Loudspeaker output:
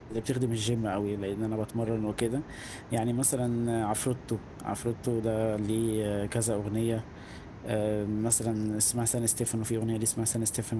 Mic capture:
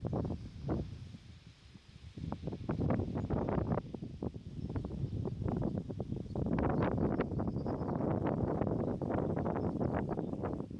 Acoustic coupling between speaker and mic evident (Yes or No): No